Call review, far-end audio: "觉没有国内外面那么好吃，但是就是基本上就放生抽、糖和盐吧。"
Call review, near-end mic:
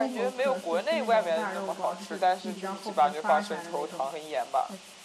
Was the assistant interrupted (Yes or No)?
Yes